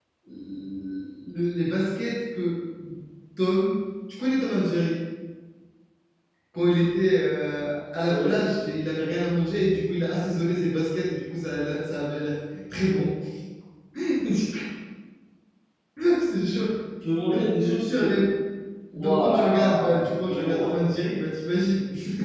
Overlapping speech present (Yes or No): Yes